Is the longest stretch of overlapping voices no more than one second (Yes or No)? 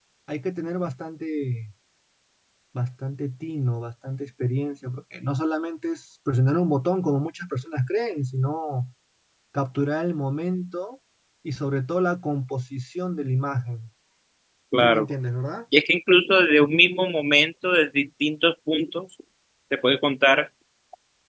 Yes